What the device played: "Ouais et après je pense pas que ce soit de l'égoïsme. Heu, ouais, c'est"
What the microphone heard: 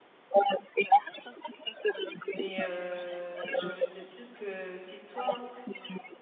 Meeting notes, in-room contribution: present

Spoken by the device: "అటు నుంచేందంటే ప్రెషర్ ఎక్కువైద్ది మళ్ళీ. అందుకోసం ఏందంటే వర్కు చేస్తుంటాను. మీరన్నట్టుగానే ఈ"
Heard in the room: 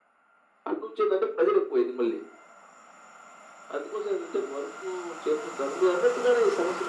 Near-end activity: none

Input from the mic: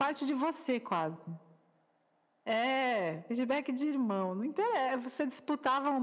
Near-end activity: none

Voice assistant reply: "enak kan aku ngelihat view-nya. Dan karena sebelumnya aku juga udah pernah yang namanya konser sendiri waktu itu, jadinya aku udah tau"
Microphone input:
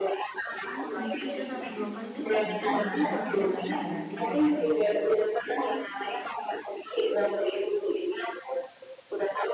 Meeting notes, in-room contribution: present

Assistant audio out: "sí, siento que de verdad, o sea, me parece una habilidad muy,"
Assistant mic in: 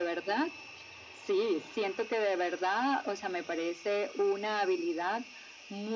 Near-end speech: none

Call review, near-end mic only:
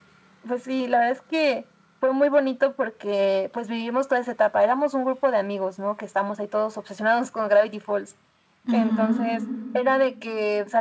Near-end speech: present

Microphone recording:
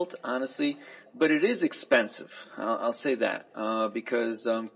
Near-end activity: none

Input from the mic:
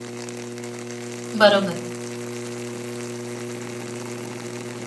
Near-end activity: present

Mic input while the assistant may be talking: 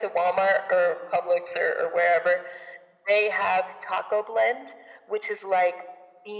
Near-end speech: none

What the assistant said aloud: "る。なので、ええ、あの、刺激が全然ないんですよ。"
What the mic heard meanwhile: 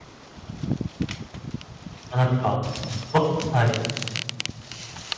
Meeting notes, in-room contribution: present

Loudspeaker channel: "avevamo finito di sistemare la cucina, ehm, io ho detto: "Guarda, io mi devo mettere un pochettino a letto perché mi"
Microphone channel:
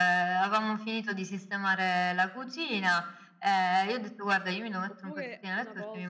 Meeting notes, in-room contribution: present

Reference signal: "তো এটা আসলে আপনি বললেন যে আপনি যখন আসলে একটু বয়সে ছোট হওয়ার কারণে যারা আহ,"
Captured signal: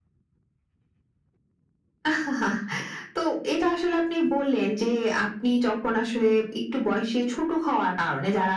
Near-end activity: none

